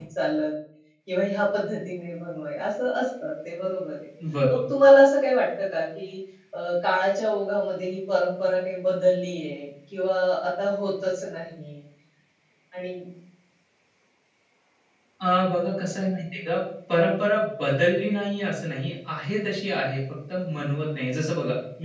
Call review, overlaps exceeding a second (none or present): none